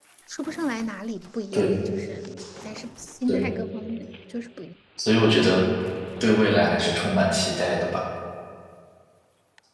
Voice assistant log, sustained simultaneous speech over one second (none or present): none